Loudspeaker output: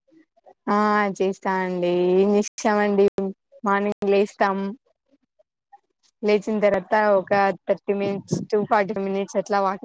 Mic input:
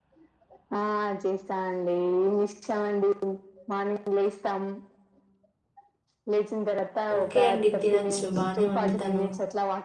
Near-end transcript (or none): ఓకే అండి తినొచ్చు బానే ఉండి తను